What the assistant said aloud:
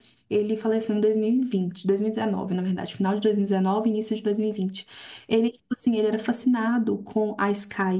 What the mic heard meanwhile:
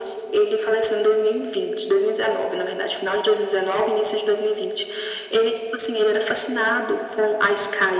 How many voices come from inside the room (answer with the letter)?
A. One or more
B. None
B